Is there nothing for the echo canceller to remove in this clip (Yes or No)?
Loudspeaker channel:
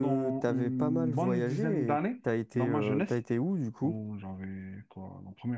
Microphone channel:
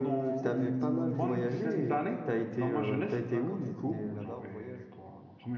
No